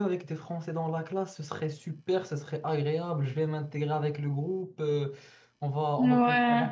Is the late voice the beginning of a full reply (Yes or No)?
No